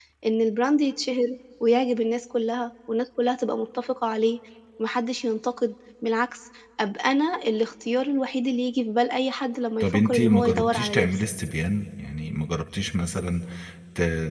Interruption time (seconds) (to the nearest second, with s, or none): 10 s